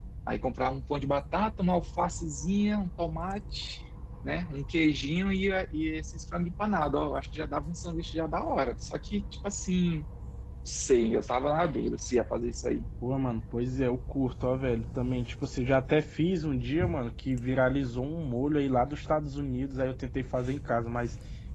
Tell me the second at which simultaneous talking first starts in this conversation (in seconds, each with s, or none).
none